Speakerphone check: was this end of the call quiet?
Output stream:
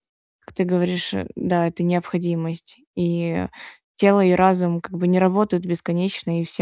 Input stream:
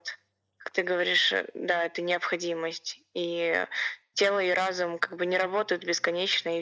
Yes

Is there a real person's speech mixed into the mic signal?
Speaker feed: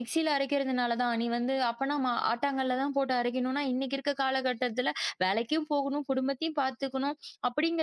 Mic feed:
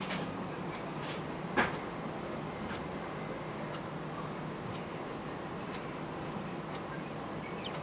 No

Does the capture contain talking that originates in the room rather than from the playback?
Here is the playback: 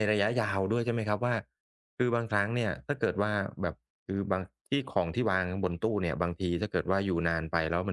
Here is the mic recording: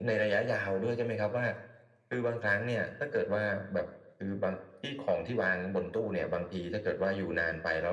No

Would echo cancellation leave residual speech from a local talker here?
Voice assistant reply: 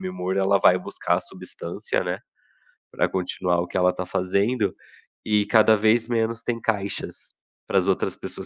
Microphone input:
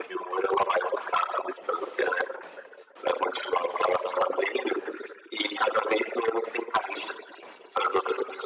No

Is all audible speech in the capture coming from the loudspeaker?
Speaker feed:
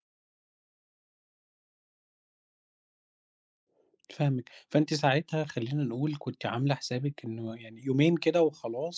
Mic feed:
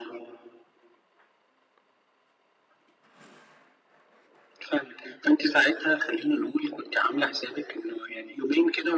Yes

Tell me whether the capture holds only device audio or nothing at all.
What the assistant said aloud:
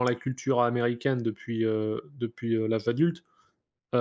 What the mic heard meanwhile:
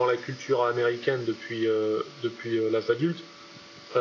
Yes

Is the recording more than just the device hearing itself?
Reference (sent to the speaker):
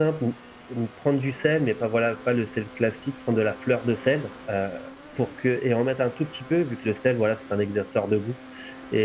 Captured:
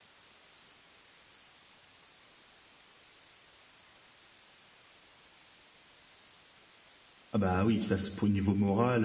Yes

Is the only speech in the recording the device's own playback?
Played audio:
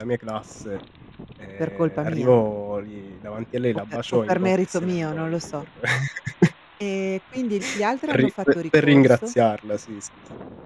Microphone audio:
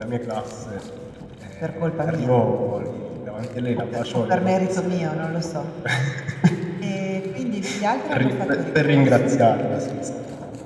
Yes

